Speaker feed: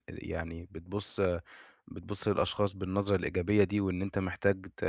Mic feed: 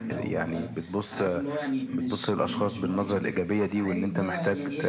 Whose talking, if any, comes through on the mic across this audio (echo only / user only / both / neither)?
both